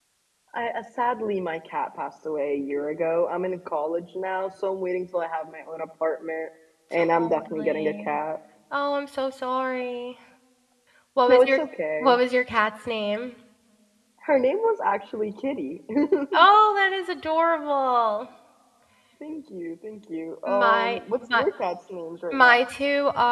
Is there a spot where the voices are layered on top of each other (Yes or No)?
Yes